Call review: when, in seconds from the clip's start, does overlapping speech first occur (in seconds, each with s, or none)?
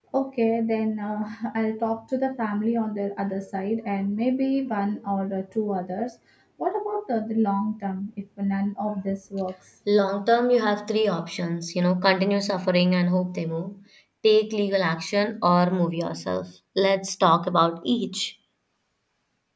none